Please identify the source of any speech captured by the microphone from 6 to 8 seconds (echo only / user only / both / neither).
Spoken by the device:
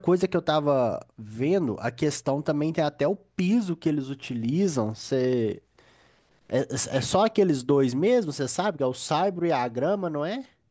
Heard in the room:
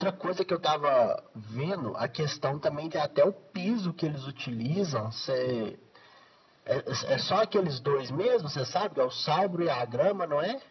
echo only